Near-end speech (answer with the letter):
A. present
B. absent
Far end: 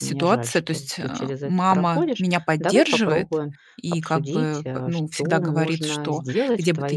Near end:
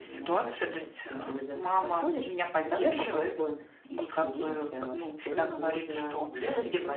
B